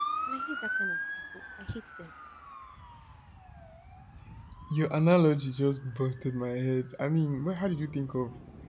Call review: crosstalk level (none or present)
none